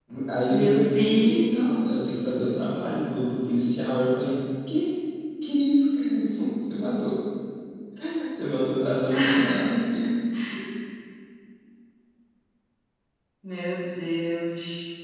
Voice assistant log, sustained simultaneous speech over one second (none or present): present